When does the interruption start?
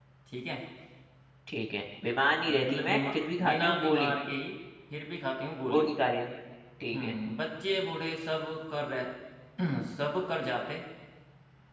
2.4 s

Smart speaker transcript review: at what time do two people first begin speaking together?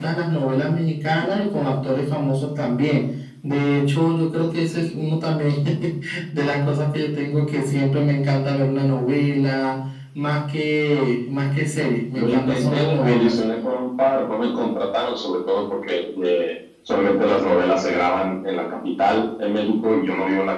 12.2 s

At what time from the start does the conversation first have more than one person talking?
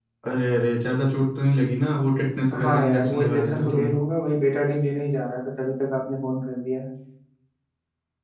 2.5 s

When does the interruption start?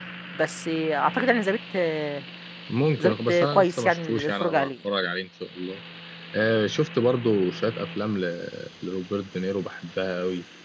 3.0 s

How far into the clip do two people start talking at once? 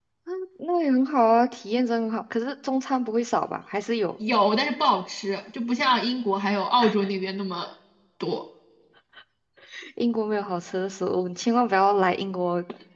none

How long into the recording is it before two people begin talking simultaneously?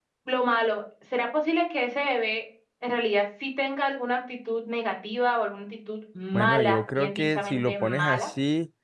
6.3 s

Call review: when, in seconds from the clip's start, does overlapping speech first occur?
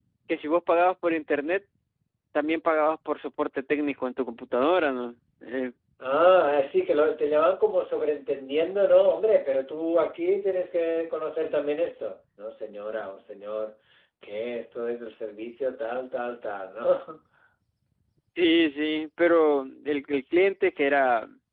none

